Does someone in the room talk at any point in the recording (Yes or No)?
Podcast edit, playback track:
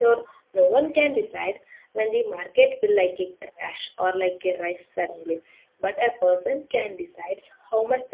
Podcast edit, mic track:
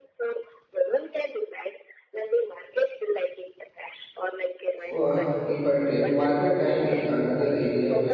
Yes